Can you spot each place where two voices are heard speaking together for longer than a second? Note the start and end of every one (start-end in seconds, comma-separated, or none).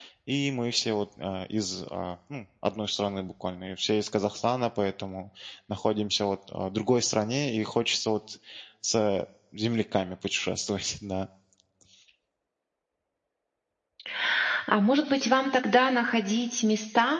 none